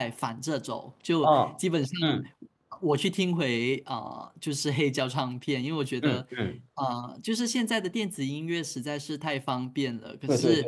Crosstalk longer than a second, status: none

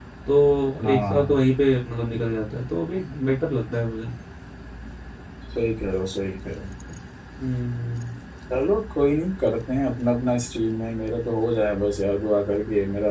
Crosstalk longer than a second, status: none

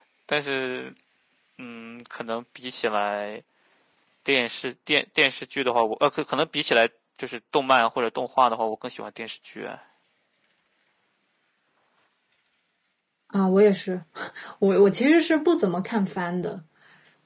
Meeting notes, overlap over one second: none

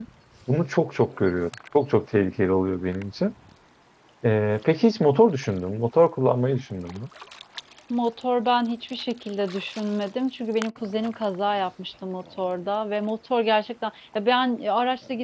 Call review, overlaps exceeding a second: none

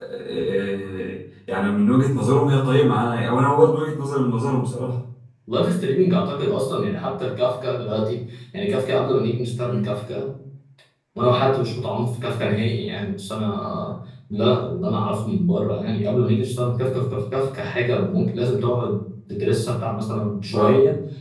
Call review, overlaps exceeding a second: none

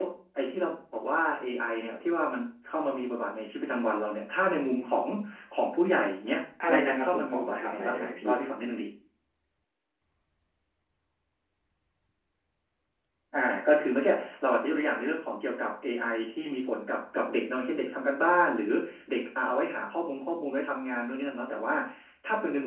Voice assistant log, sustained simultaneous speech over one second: present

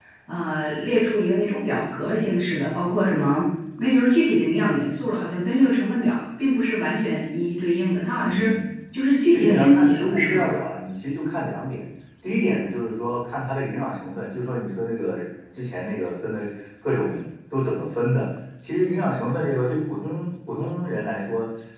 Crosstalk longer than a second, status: present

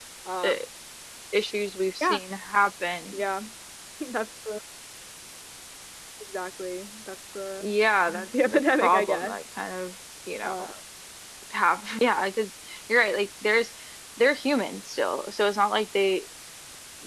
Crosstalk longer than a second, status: present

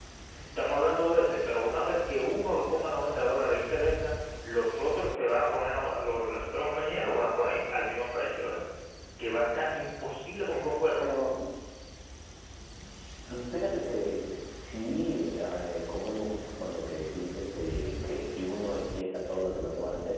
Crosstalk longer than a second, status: none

